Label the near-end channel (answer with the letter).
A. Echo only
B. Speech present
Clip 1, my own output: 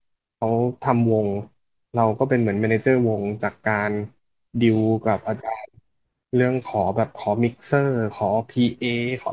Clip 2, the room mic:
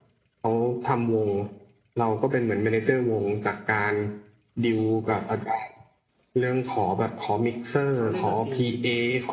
B